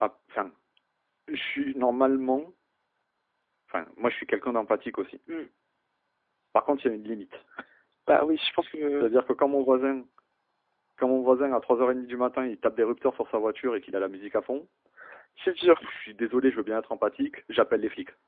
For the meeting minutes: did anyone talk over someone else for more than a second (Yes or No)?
No